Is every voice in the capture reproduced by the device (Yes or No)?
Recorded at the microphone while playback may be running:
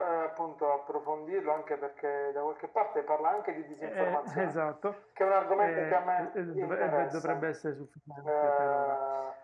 No